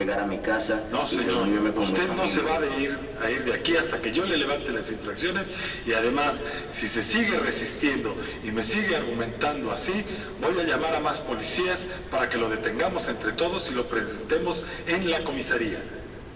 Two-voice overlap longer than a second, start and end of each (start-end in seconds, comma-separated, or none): 1.1-2.5